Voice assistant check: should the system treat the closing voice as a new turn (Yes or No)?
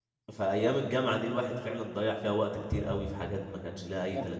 Yes